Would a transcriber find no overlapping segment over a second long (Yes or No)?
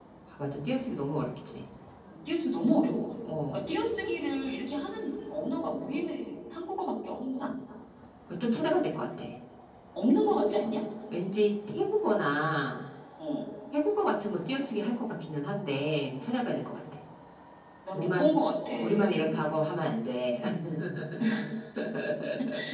Yes